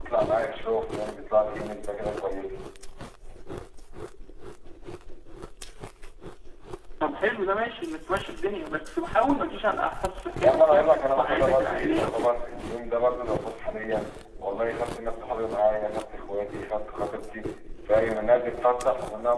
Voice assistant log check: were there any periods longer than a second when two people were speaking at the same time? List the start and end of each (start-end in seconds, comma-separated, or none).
10.4-12.3